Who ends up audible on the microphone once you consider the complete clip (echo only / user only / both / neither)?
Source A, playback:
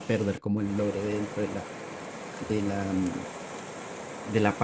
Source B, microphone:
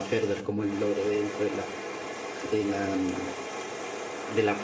echo only